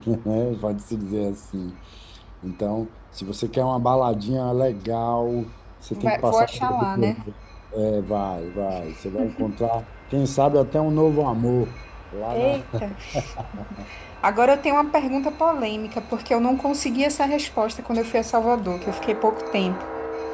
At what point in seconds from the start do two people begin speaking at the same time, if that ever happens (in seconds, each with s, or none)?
6.0 s